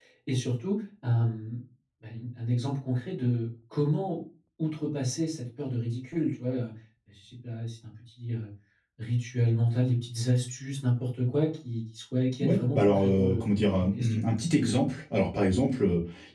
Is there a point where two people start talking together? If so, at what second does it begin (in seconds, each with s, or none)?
12.4 s